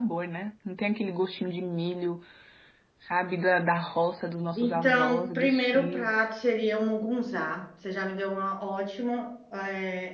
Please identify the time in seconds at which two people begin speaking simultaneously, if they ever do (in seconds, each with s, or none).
4.6 s